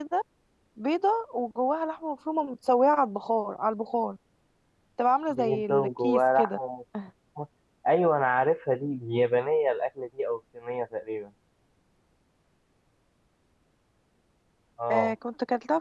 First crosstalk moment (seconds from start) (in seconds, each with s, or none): 5.3 s